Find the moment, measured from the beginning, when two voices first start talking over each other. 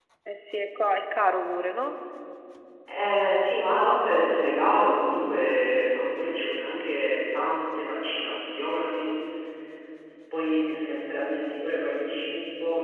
none

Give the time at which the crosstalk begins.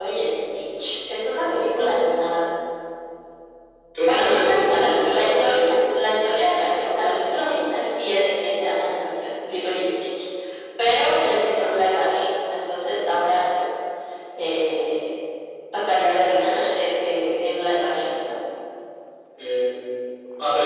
4 s

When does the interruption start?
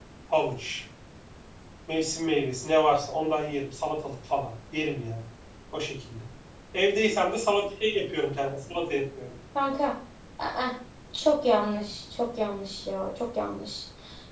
none

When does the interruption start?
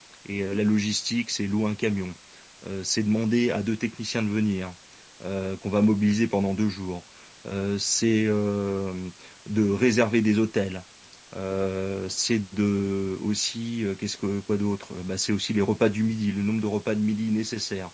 none

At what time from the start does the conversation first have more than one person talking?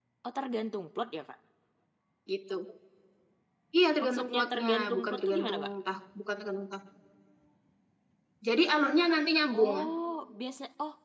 4 s

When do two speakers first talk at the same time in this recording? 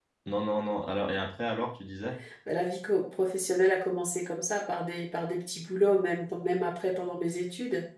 none

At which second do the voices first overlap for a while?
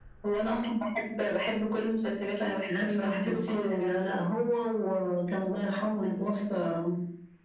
3 s

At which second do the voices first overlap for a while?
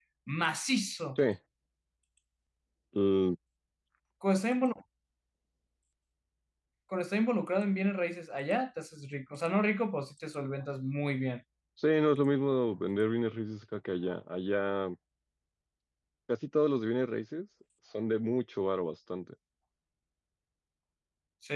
none

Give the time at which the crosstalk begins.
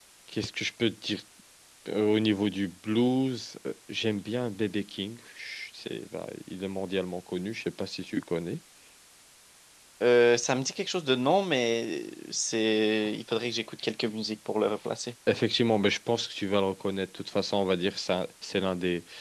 none

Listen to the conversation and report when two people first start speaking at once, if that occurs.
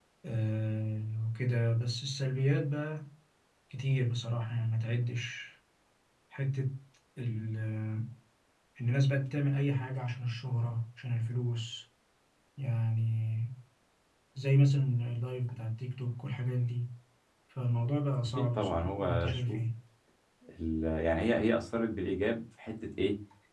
18 s

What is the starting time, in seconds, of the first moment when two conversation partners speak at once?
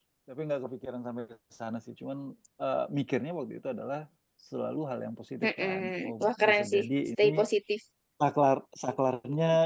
5 s

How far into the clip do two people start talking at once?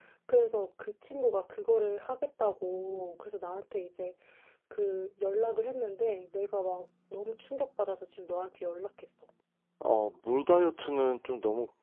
none

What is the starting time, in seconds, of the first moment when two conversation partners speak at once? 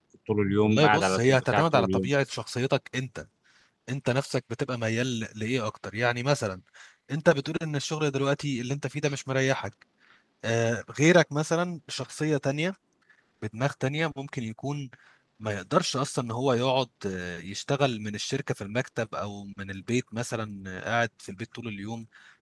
1 s

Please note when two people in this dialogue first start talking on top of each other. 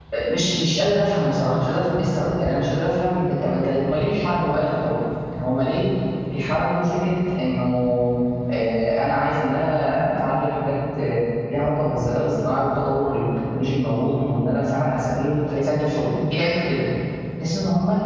none

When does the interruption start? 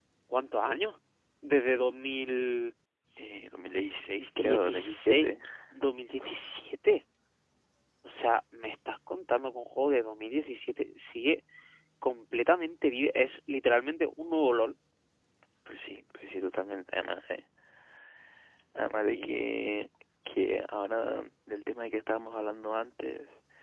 4 s

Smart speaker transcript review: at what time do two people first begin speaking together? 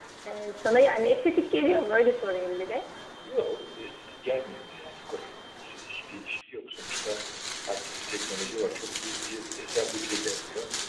none

